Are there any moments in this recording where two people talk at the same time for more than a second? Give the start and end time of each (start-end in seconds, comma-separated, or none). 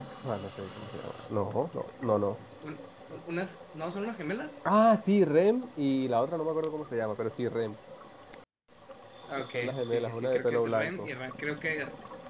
9.5-11.1